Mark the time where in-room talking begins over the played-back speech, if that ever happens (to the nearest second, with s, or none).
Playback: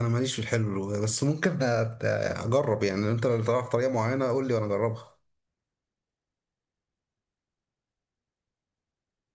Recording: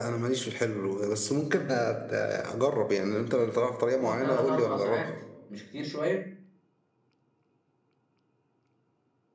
4 s